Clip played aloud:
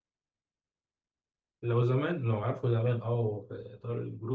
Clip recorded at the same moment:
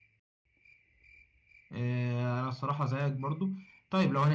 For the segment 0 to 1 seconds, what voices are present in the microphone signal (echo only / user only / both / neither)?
neither